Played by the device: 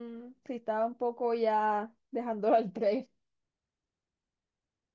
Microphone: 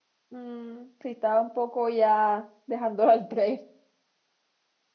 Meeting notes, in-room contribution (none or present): none